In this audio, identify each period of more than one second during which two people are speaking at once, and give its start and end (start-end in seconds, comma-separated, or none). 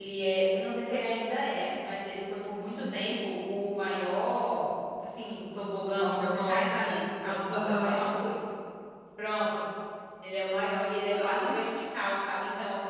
5.9-8.0